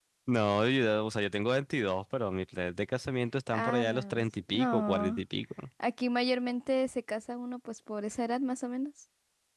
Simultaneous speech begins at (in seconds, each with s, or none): 3.5 s